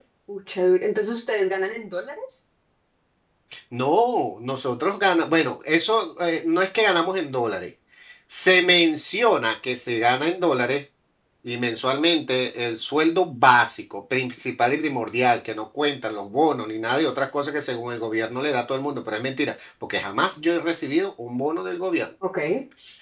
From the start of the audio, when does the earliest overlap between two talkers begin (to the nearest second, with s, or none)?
none